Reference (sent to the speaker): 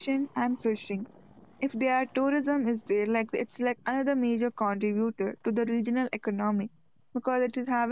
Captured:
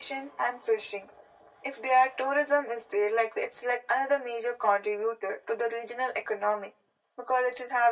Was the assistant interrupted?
No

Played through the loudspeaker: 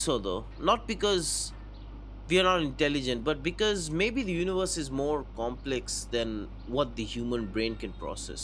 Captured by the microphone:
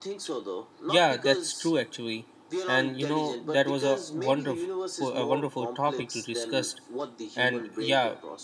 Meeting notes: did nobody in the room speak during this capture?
No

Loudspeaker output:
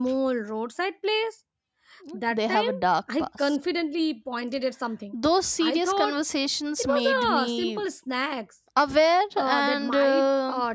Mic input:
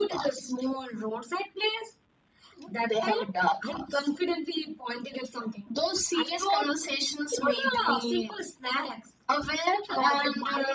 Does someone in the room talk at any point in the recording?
No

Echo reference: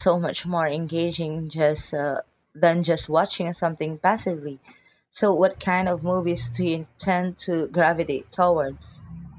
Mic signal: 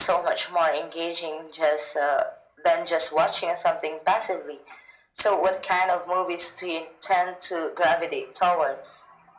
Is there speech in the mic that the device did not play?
No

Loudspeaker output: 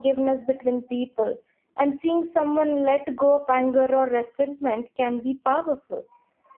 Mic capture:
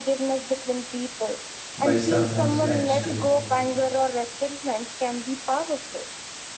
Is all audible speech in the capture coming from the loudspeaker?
No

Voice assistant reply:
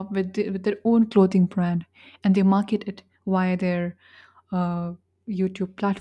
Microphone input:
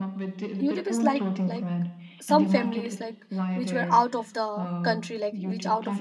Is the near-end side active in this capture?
Yes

